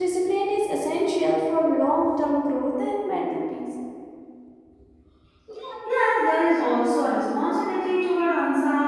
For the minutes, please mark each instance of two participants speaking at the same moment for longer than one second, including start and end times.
none

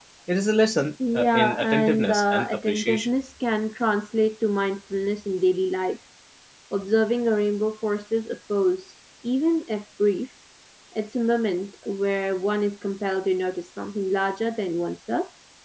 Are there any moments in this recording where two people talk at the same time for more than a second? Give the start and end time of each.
1.1-3.1

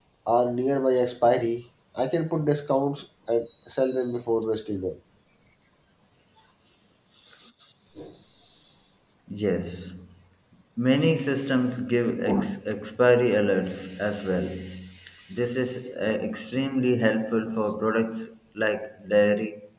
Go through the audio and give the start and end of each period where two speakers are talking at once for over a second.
none

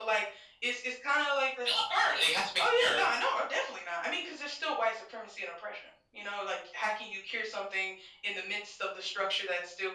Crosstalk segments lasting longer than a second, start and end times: none

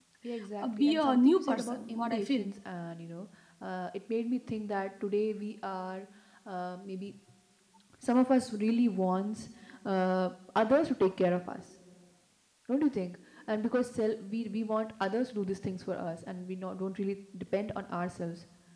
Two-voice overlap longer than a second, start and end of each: 0.6-2.5

